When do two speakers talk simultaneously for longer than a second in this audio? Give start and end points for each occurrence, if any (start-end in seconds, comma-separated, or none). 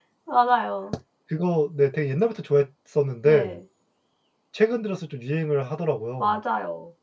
none